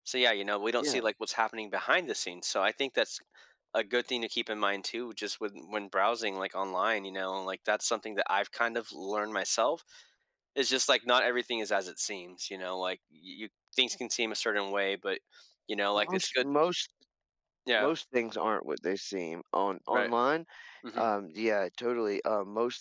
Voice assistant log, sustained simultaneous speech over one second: none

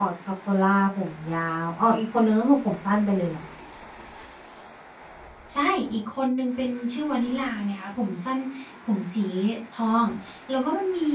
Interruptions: none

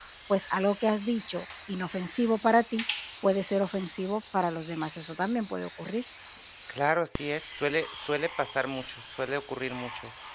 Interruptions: none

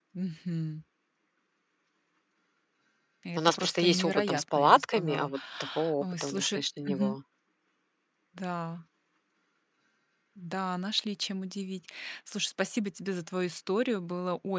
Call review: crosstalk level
present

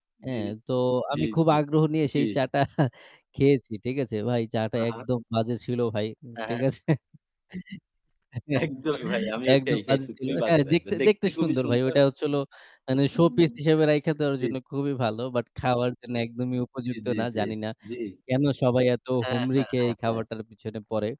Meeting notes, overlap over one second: present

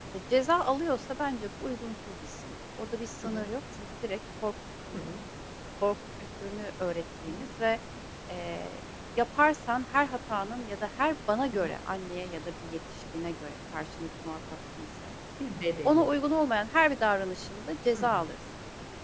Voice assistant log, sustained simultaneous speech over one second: none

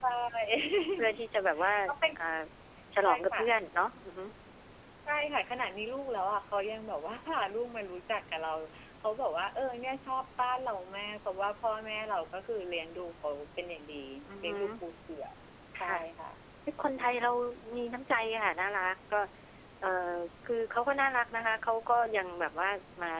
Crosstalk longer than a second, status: none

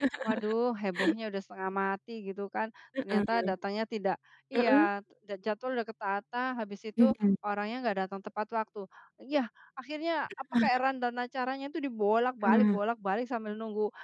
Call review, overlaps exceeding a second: none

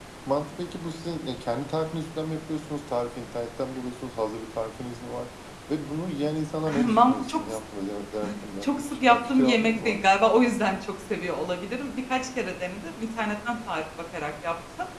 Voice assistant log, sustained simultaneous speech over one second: present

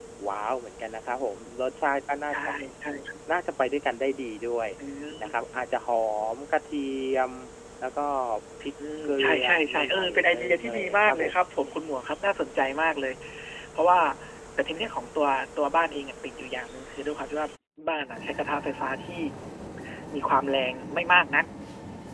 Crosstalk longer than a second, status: present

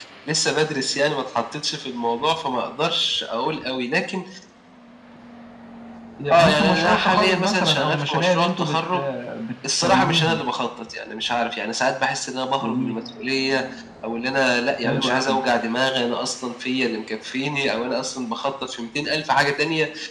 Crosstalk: present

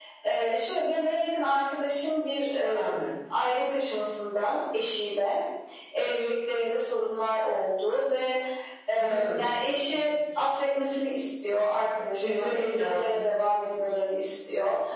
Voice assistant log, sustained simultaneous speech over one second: present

